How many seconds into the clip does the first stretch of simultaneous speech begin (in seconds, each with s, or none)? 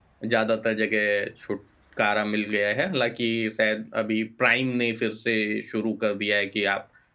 none